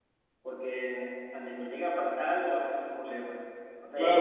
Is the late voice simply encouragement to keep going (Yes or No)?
No